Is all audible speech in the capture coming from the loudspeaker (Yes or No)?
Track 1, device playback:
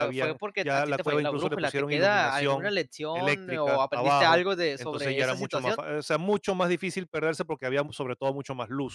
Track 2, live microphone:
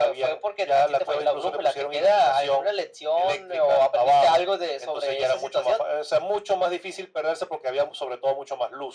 Yes